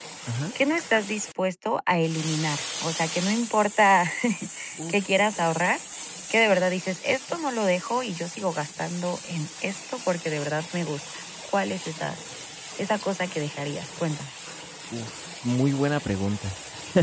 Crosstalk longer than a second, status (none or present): none